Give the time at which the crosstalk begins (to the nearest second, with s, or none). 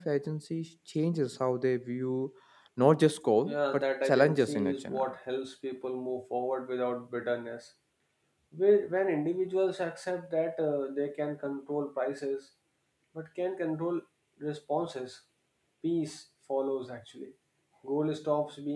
3 s